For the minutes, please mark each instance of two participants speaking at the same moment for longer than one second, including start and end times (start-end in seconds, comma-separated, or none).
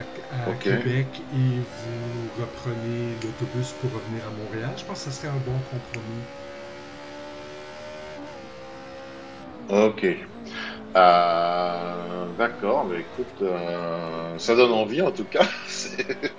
none